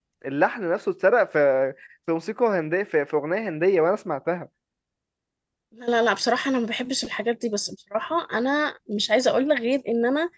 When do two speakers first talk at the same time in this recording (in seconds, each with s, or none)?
none